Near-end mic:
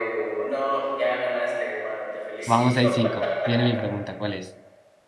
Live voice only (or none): Vamos 6 cinco viene mi pregunta, ¿cuál es?